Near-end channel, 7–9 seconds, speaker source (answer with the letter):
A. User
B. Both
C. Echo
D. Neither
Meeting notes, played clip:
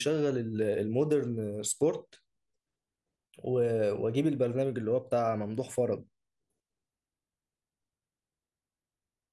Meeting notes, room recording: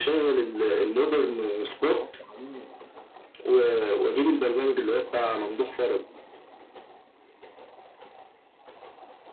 D